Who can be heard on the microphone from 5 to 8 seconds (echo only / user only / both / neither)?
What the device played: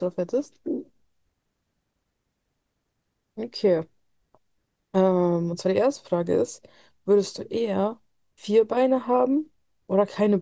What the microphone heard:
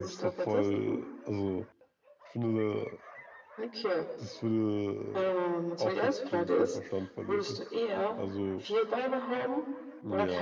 both